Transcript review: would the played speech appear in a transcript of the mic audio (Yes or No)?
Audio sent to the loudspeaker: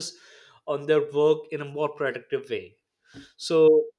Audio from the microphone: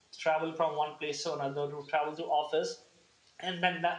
No